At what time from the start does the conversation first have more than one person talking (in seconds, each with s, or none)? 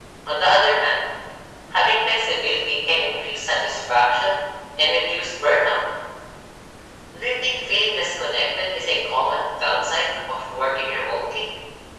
none